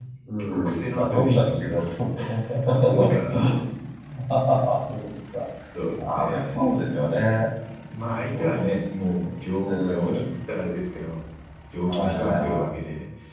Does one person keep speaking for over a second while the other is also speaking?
Yes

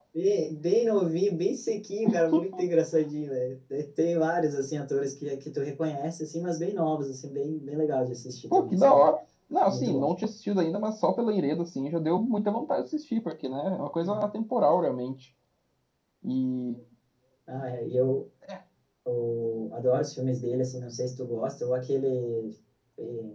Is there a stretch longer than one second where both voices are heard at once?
No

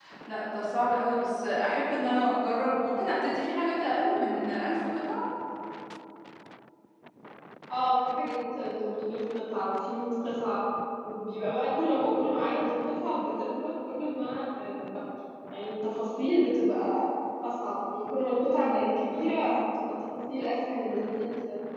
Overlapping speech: No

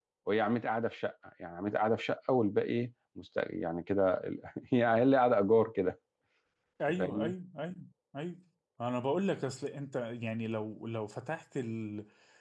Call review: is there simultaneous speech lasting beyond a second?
No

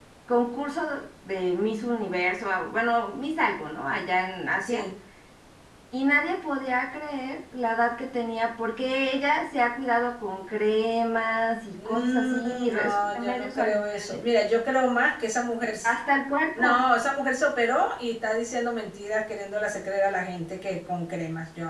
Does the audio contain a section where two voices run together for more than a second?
Yes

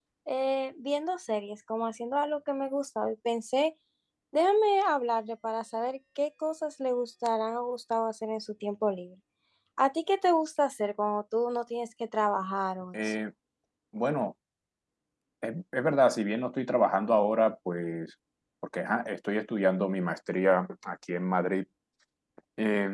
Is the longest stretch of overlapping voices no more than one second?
Yes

